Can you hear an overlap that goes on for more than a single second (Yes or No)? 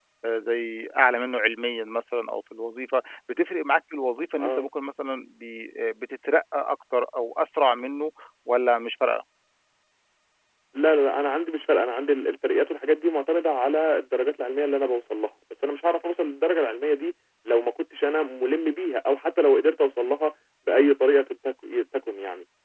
No